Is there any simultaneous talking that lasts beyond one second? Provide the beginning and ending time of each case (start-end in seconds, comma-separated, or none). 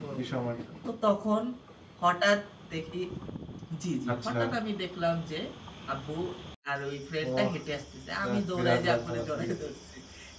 8.2-9.5